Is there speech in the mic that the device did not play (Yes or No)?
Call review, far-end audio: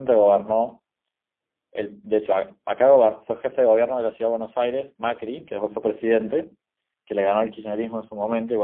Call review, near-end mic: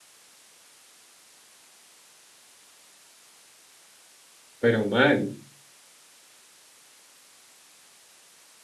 Yes